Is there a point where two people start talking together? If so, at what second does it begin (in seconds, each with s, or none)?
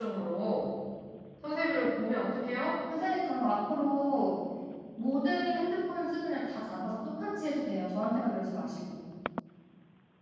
none